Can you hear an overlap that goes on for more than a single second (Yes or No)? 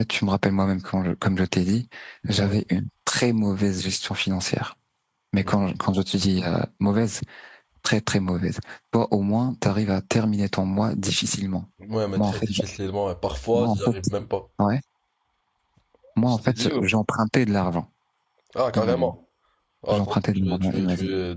Yes